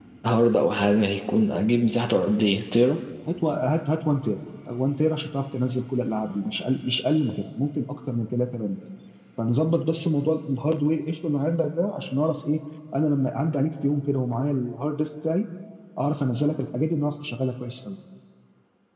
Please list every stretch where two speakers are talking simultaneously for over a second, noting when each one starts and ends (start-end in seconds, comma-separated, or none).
none